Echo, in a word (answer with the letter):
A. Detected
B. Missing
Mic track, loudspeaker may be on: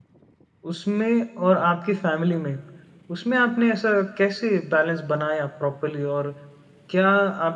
B